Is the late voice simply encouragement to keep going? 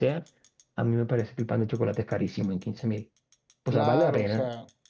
No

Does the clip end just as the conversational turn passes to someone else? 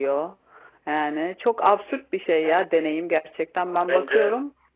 Yes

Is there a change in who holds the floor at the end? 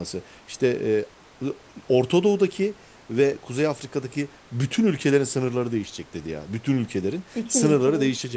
No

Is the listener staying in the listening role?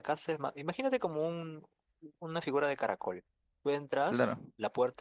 Yes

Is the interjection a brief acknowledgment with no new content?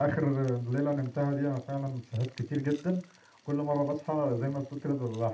Yes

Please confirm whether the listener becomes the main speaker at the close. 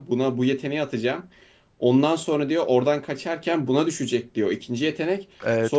No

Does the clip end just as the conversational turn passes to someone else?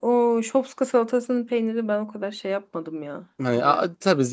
Yes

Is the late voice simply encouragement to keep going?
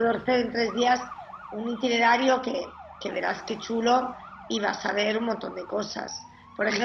Yes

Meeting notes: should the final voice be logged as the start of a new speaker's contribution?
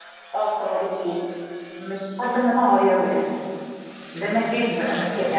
Yes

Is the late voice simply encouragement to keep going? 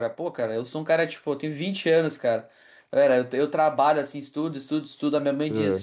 Yes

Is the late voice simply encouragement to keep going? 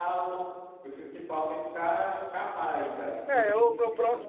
No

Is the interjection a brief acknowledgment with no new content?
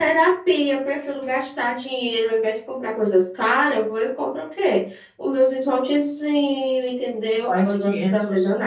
No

